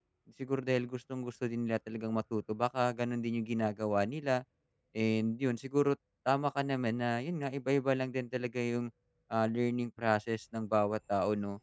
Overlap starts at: none

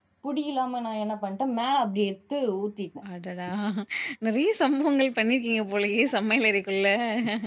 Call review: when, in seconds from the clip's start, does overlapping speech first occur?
none

